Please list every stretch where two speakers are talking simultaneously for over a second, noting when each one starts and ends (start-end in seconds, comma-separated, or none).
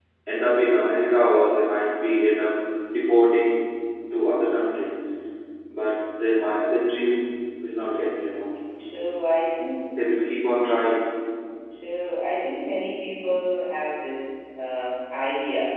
none